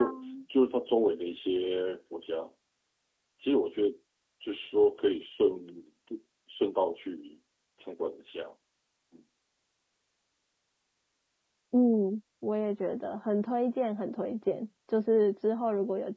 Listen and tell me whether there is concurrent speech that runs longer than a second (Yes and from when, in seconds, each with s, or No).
No